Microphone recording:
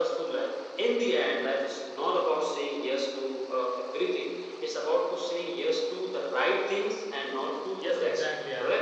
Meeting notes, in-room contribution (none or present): present